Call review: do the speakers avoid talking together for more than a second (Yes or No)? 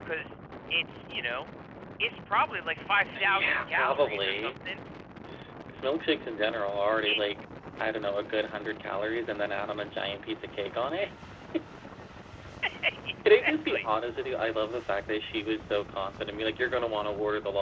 No